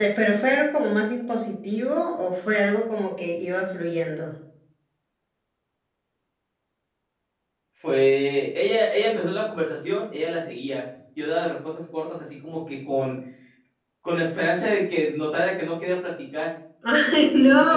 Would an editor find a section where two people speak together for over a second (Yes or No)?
No